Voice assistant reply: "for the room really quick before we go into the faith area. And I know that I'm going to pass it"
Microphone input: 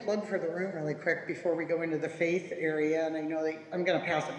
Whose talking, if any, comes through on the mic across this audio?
echo only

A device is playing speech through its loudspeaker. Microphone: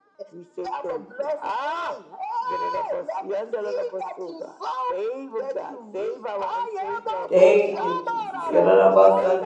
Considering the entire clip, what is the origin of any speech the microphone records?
both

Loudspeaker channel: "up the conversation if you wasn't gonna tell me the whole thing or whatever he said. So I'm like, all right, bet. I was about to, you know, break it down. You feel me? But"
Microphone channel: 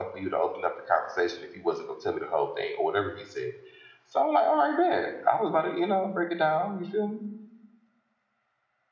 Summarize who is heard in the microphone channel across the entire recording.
echo only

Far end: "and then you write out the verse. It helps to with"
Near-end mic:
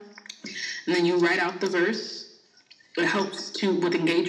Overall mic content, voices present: echo only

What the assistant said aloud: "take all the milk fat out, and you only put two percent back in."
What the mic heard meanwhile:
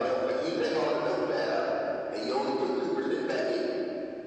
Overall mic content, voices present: echo only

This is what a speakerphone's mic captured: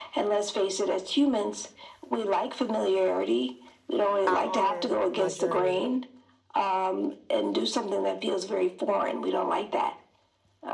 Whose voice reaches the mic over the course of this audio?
both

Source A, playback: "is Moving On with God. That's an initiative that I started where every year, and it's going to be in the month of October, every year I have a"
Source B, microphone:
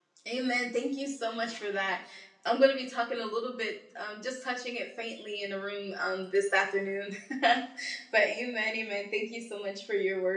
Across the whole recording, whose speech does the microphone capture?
user only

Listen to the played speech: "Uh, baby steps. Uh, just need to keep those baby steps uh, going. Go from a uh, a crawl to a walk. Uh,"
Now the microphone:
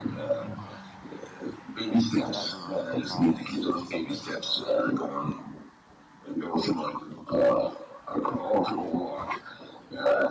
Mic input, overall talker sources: both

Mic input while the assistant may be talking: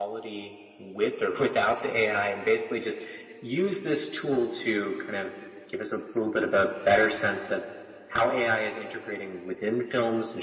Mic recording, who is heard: echo only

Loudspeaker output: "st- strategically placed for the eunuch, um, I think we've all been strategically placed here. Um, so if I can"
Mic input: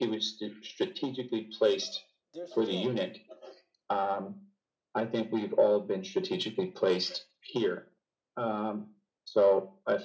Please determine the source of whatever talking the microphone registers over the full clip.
both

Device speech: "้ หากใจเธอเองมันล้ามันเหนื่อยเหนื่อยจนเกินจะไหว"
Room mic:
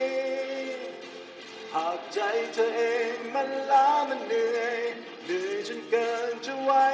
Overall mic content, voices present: echo only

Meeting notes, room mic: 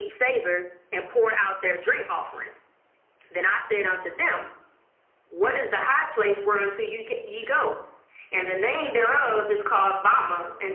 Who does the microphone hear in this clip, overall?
echo only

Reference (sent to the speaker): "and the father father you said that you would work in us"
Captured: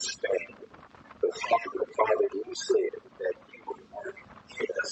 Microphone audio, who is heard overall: echo only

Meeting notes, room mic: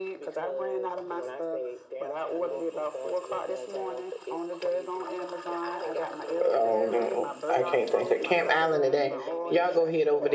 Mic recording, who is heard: both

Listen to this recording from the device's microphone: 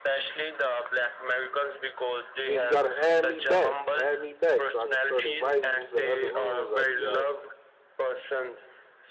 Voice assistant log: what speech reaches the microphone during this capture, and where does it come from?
both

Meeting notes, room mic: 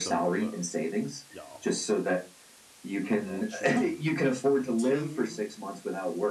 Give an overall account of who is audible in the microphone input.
both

